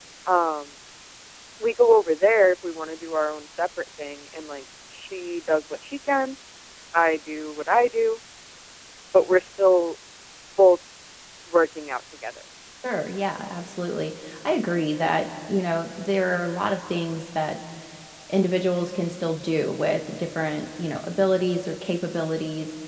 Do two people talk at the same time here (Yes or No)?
No